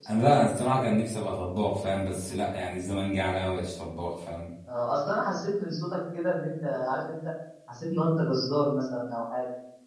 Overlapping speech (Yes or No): No